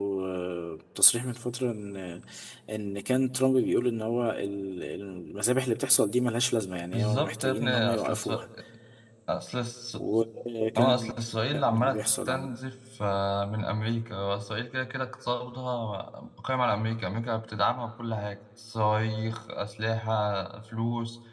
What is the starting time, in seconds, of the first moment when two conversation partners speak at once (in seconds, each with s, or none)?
6.9 s